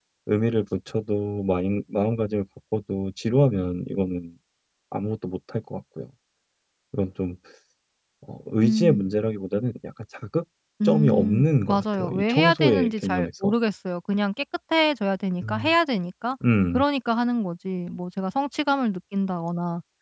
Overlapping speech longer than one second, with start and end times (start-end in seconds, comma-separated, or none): 10.8-13.5